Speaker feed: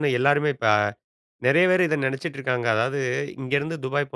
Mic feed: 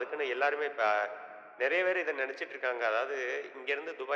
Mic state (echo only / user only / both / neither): echo only